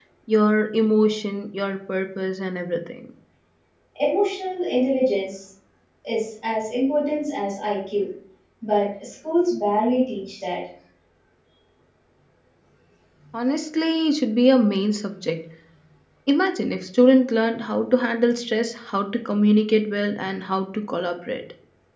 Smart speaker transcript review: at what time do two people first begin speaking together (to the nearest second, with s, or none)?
none